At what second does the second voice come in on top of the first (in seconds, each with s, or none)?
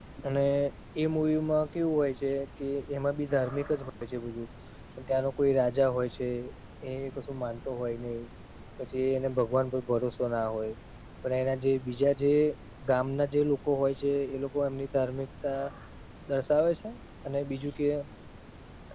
none